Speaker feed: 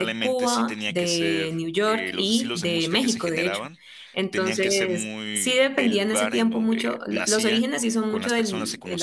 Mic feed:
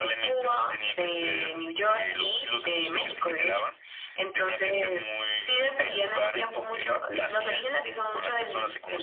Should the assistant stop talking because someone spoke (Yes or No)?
No